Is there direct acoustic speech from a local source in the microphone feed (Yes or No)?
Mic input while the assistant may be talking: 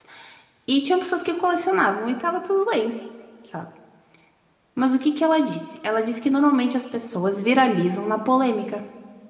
Yes